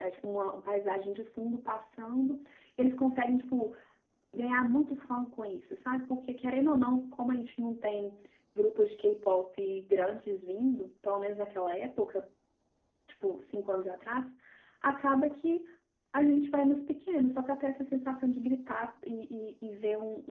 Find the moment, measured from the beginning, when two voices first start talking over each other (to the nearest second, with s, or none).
none